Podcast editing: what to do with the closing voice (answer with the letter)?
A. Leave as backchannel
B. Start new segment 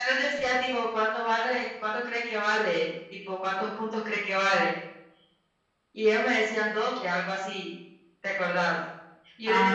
A